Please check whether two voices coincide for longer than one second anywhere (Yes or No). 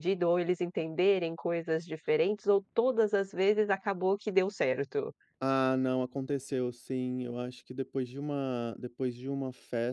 No